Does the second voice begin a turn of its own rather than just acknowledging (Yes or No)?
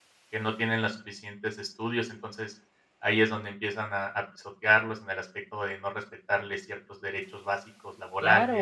Yes